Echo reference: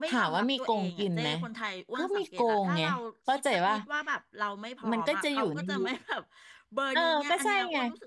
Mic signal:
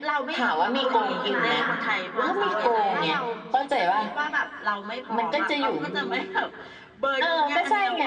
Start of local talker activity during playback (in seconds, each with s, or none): 0.7 s